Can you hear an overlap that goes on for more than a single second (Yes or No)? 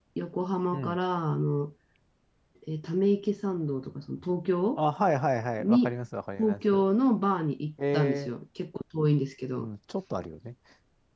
No